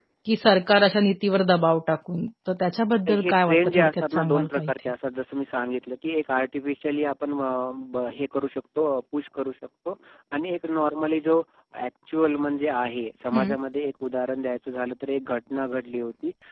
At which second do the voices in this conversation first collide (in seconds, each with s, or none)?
3.1 s